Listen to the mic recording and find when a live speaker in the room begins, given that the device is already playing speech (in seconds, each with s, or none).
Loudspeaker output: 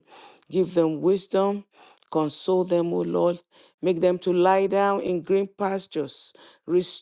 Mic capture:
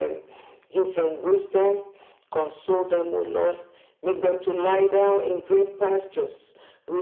none